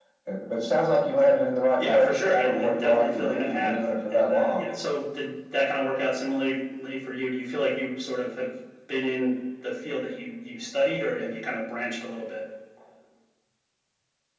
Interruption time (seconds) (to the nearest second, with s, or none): 2 s